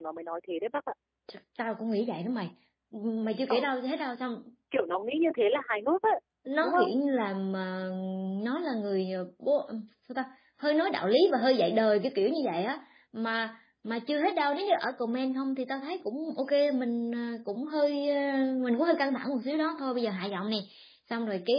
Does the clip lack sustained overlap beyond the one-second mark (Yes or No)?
Yes